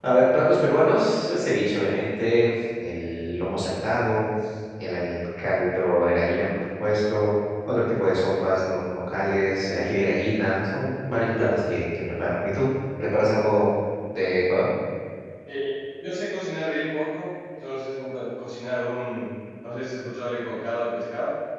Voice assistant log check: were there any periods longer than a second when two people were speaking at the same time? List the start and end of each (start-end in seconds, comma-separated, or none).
none